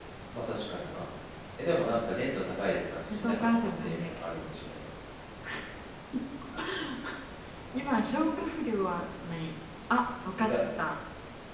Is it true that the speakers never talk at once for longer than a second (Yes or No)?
No